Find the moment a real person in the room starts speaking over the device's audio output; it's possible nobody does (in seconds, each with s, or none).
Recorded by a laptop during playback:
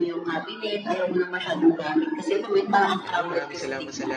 3.1 s